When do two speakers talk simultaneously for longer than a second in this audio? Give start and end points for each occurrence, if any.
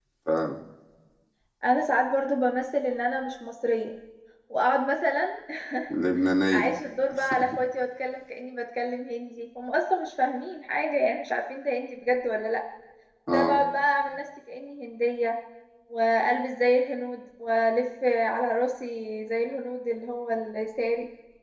none

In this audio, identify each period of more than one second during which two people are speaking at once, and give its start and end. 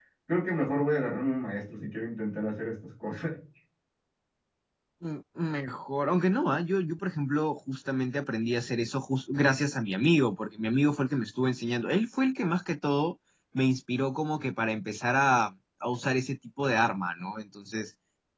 none

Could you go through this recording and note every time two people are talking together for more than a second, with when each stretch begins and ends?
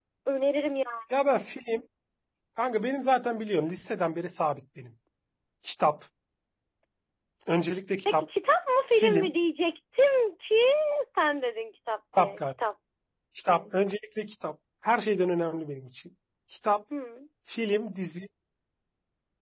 none

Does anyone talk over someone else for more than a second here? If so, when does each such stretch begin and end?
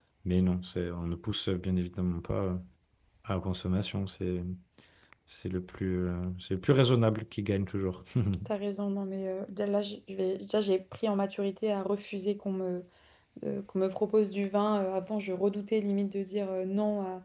none

